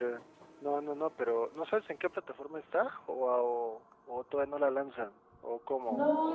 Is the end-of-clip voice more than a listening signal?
Yes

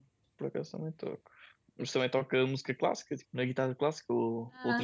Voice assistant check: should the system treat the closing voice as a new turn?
Yes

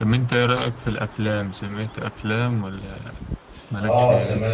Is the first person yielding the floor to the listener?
Yes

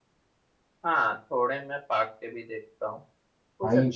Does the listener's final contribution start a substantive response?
No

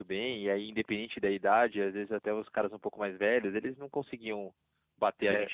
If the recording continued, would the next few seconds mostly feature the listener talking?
Yes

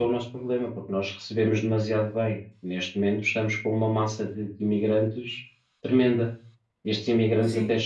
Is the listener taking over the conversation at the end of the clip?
Yes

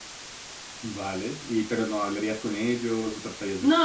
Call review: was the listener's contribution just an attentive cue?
No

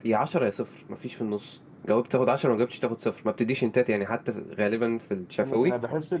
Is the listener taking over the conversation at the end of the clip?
Yes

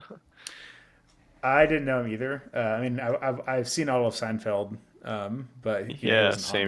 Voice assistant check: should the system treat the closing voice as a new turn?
Yes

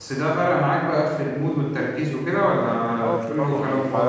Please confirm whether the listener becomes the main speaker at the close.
Yes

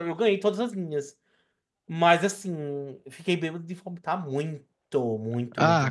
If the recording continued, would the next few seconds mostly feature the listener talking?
Yes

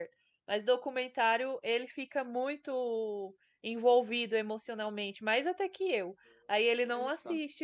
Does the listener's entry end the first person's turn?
No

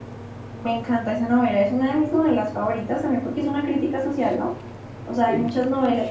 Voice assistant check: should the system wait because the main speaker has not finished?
Yes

